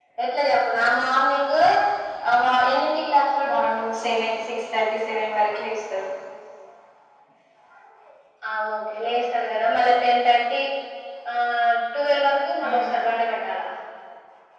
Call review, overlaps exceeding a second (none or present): none